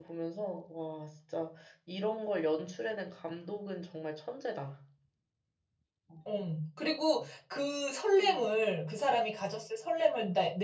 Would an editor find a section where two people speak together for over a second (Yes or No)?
No